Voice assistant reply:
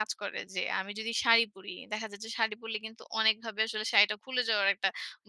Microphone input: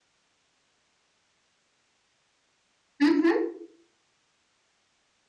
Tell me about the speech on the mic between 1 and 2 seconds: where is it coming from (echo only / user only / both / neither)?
neither